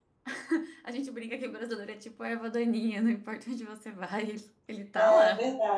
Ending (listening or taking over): taking over